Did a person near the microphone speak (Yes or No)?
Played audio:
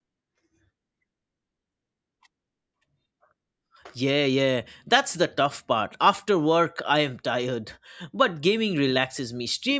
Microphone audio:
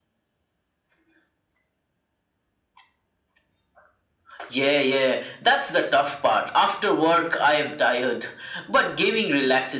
No